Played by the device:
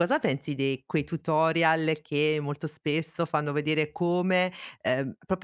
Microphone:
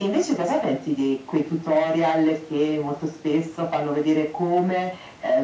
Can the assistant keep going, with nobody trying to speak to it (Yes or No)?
Yes